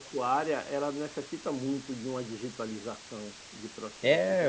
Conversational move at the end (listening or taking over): taking over